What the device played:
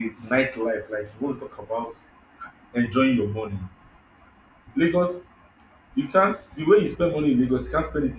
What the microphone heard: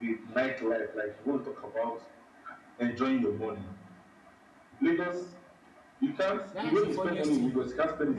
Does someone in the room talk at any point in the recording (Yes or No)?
Yes